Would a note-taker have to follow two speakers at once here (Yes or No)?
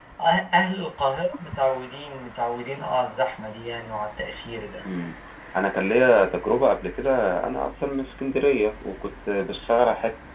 No